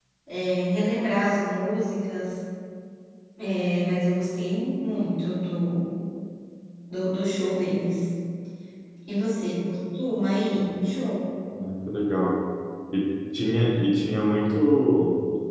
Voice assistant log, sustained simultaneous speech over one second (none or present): none